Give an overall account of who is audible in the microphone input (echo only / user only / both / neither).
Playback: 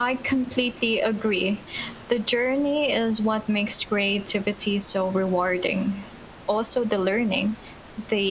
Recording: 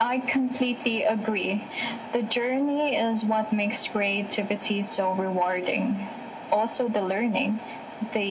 echo only